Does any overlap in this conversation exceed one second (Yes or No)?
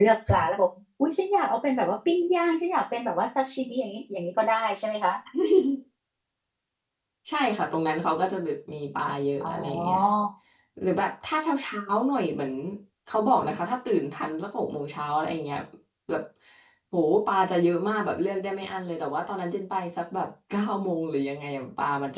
No